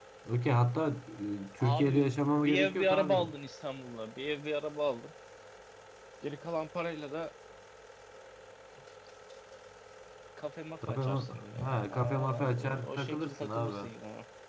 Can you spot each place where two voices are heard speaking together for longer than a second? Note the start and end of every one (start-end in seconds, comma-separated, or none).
1.6-3.3, 10.9-13.9